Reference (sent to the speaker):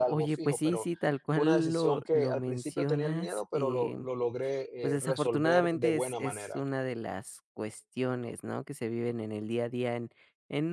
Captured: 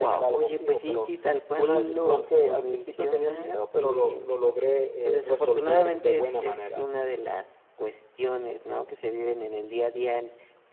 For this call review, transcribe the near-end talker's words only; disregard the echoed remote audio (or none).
none